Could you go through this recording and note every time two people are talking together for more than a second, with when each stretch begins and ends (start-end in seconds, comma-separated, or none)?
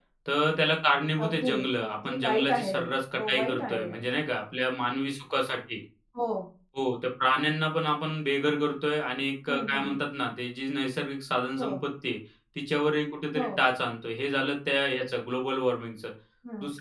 1.2-4.2